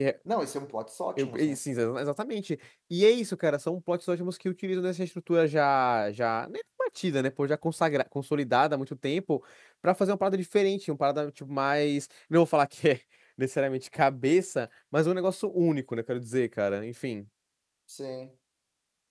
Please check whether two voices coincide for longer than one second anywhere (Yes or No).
No